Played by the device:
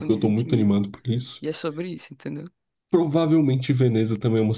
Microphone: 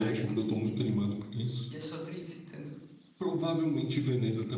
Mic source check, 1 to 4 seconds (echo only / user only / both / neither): echo only